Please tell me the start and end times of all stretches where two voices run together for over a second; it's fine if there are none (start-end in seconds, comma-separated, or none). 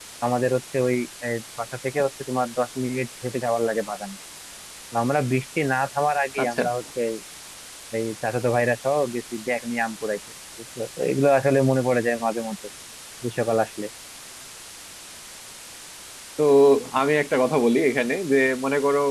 none